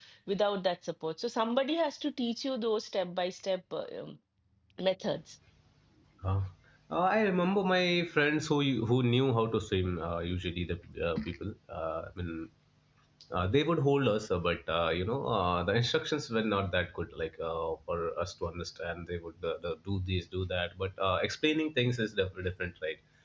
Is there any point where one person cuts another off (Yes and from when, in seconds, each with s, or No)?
No